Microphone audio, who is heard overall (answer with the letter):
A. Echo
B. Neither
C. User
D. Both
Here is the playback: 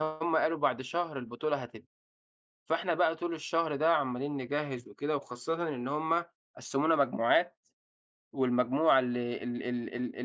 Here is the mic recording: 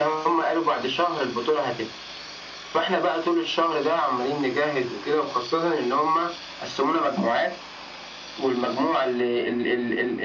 A